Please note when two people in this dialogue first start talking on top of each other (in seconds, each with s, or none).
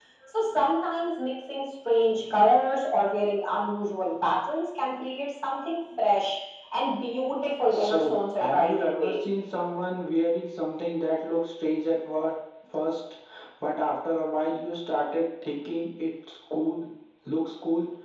7.7 s